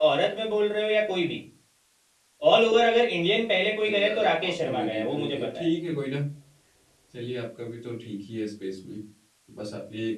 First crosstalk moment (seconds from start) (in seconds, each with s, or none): 3.8 s